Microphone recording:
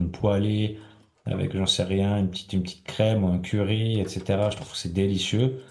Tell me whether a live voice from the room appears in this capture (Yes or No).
Yes